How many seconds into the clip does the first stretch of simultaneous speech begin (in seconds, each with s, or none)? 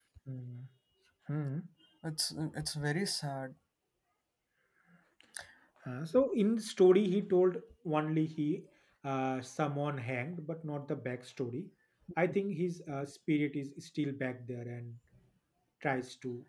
none